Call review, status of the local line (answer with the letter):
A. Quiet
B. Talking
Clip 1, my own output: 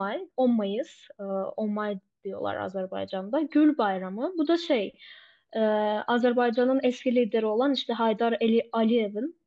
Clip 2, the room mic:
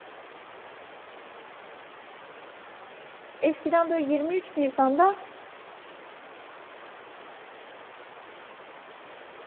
B